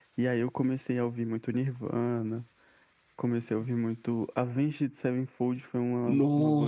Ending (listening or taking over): taking over